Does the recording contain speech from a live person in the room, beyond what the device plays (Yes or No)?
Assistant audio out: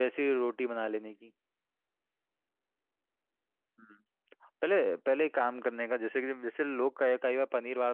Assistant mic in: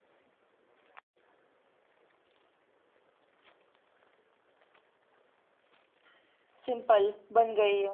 Yes